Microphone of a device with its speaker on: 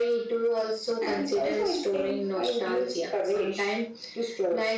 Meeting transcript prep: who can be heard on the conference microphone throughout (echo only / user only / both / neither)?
echo only